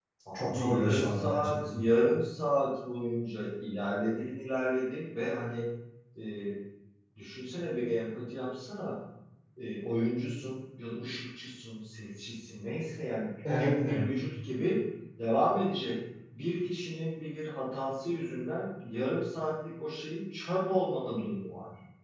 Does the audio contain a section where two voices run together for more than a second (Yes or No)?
Yes